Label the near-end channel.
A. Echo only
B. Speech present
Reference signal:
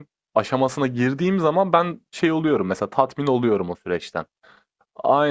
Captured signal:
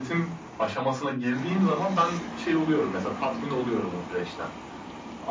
A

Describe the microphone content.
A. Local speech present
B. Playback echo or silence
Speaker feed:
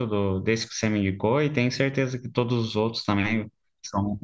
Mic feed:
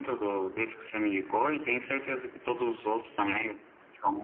B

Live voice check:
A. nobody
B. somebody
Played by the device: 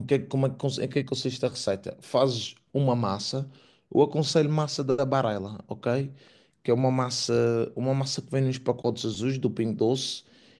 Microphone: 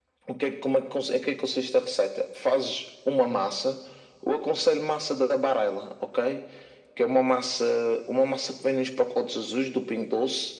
A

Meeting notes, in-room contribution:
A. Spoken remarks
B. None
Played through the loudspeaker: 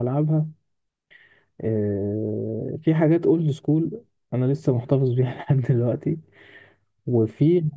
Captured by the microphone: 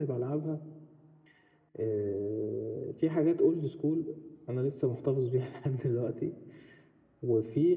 B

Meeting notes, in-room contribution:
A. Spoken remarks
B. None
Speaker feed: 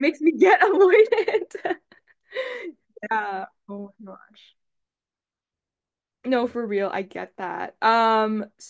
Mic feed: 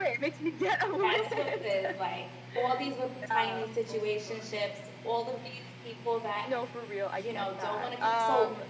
A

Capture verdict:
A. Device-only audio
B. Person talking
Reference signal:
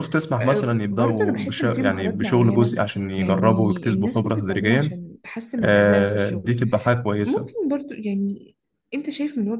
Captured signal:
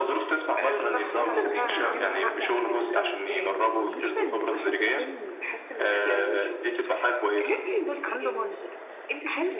B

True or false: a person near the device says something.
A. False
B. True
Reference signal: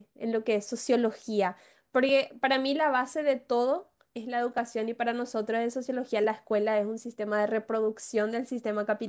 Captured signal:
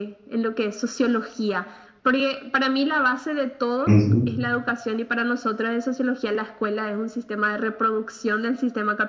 B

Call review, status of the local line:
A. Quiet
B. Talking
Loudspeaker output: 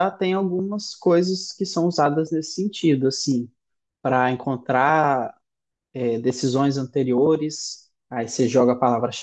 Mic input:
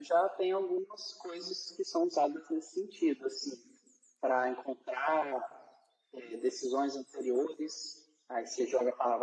A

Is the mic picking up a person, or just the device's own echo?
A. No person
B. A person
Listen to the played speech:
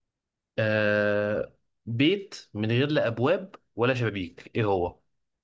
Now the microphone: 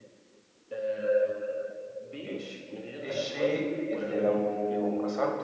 B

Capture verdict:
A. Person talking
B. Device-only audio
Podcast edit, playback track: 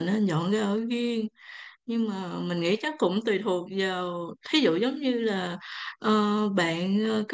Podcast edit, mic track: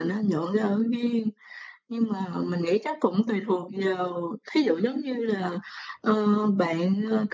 B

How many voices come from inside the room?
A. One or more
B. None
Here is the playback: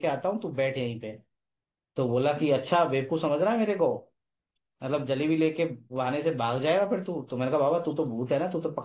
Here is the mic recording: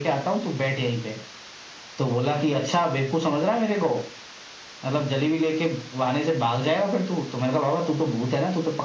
B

